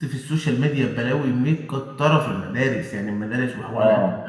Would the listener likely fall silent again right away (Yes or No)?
No